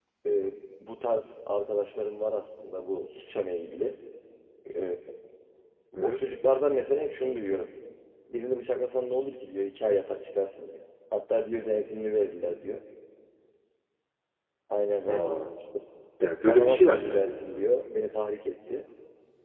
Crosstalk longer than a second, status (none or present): none